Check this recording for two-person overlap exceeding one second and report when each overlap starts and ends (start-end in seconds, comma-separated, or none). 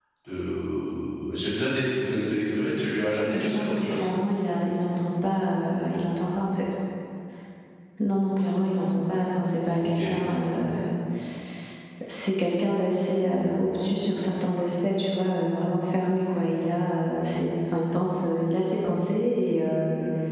2.0-4.1